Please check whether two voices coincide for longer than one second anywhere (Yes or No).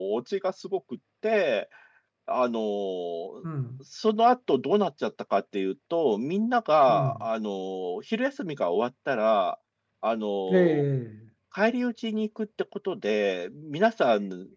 No